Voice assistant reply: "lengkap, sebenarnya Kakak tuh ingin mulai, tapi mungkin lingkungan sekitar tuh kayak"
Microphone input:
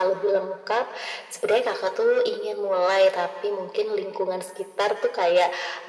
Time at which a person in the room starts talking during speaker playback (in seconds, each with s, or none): none